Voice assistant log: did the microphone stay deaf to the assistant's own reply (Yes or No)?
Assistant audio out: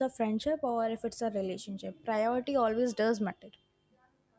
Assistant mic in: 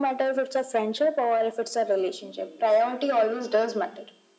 No